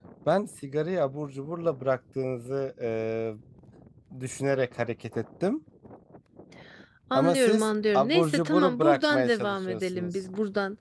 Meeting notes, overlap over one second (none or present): present